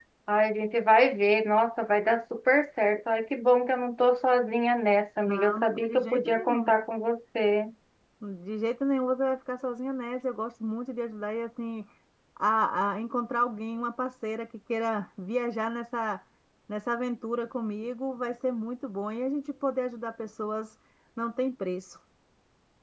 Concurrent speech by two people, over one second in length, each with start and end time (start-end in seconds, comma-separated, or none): 5.3-6.7